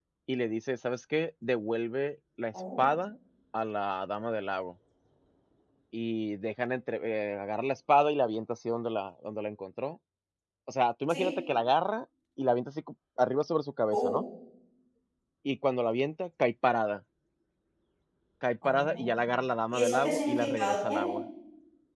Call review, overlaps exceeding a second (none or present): present